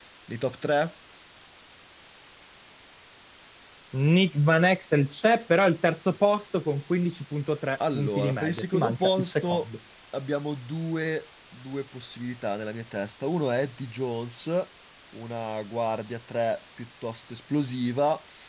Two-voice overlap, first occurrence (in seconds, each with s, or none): 7.8 s